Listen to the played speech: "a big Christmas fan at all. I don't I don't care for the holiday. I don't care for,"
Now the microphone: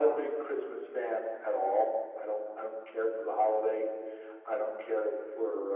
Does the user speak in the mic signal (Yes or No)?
No